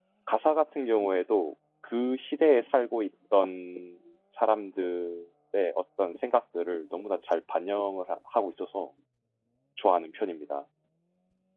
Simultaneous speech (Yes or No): No